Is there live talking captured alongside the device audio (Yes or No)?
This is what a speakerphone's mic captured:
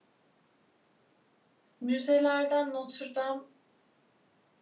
Yes